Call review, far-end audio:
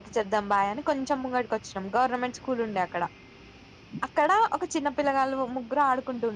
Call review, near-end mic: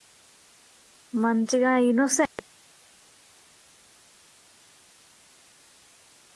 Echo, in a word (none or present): none